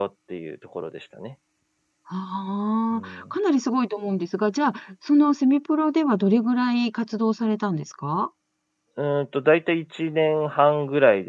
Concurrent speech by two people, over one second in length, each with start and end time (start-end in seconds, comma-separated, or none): none